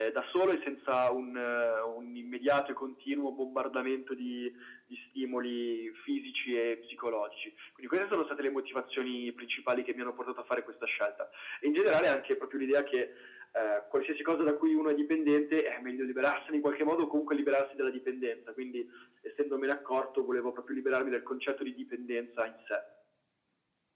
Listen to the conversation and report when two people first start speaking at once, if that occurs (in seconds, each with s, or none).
none